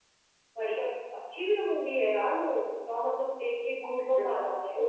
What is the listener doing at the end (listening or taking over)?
taking over